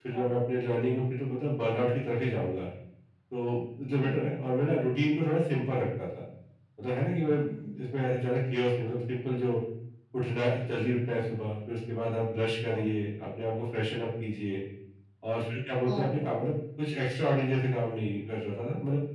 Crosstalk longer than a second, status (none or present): none